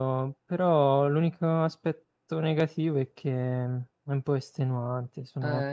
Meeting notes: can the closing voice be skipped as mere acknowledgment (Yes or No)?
No